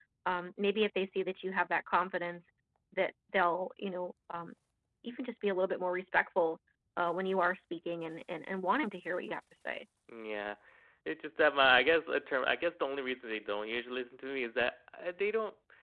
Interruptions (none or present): none